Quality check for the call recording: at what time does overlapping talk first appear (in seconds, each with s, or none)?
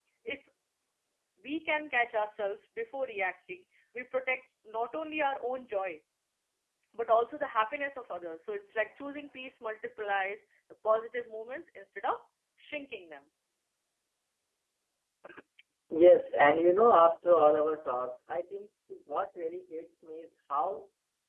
none